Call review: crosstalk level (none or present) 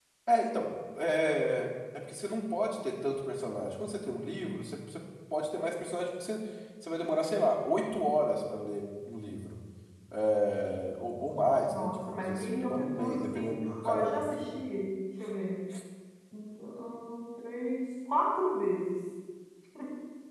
present